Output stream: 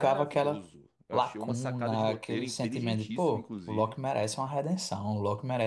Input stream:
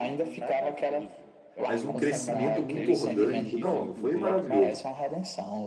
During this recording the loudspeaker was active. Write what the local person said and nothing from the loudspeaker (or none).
mas um crescimento muito orgânico. Não, foi maravilhoso.